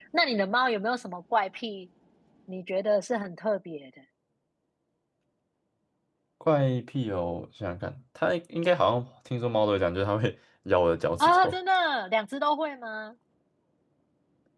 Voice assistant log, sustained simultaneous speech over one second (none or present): none